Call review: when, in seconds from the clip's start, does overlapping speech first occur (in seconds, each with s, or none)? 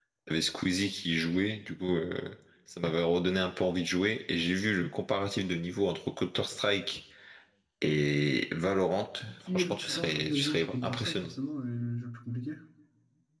9.3 s